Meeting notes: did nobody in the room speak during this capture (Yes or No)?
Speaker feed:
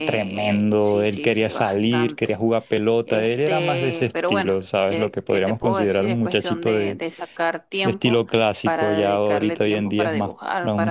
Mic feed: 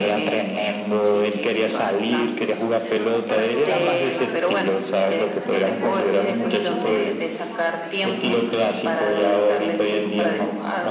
No